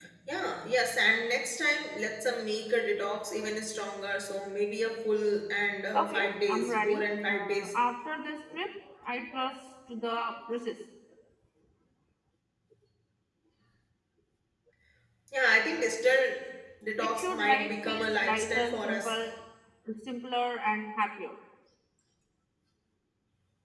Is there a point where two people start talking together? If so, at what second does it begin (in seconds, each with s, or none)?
6.0 s